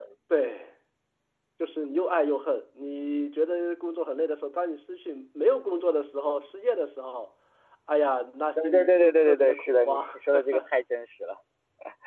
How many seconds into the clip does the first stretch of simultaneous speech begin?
8.6 s

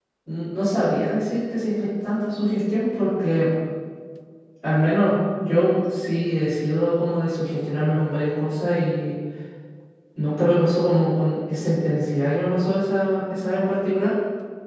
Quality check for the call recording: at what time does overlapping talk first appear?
none

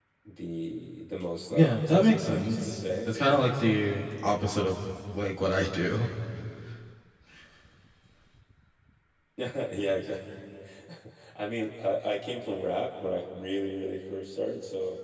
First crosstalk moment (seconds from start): 1.5 s

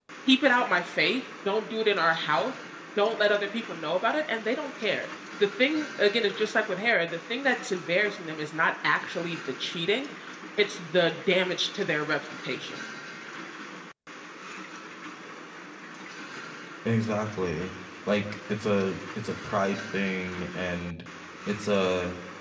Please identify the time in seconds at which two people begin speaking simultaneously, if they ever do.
none

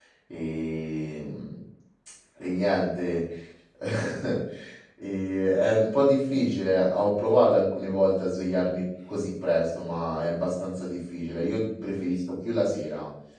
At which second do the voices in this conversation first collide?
none

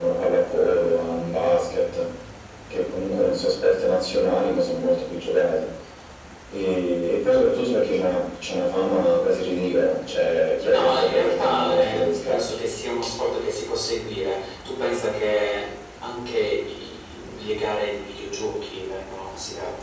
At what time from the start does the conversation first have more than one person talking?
10.7 s

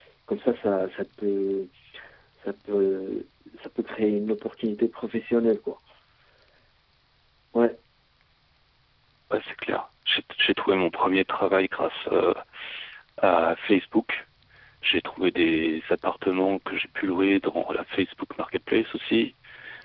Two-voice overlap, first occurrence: none

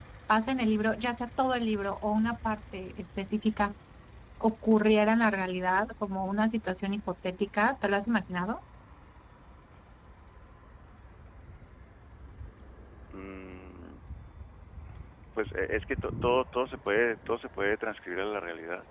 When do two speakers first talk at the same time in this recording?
none

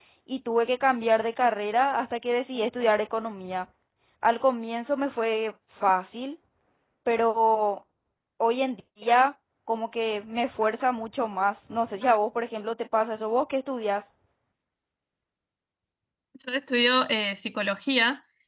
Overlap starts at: none

